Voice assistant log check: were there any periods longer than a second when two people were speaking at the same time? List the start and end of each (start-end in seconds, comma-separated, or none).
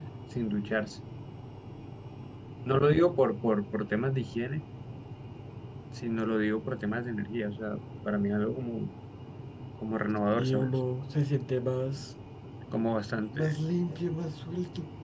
none